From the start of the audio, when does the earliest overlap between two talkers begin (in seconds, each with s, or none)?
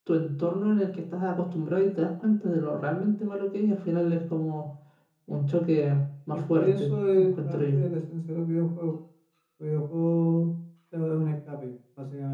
6.5 s